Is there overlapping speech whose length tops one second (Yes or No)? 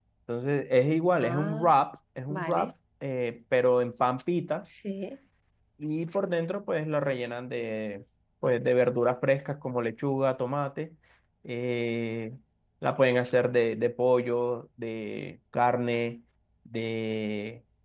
No